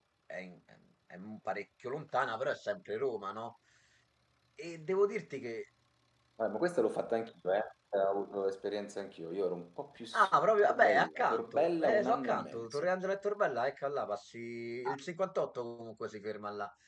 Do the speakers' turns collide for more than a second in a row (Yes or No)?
Yes